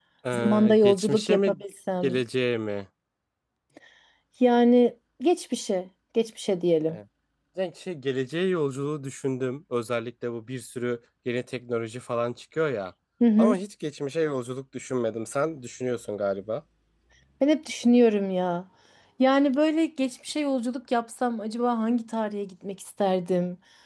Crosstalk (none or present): present